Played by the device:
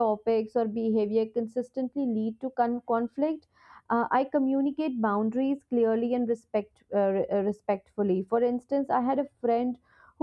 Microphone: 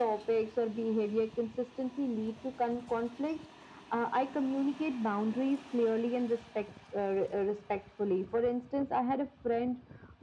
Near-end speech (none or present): none